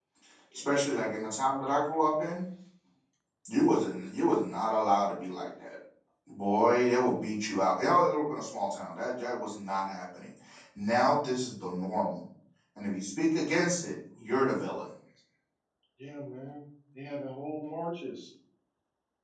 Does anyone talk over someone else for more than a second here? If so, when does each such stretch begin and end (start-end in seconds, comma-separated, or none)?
none